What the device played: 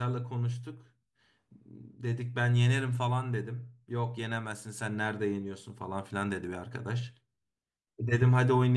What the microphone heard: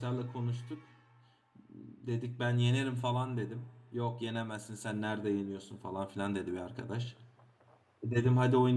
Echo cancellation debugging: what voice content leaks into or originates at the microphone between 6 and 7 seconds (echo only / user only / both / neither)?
echo only